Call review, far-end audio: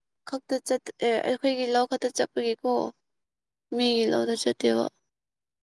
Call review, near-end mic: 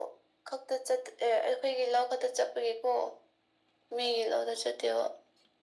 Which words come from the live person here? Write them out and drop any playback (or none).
none